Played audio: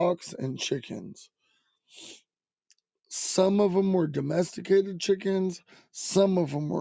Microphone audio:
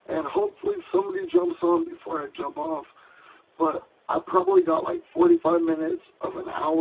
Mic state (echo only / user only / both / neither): user only